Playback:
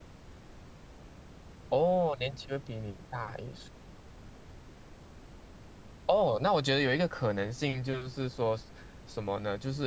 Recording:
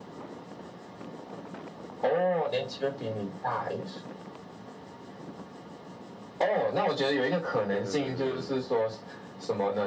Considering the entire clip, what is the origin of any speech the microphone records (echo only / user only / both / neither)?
both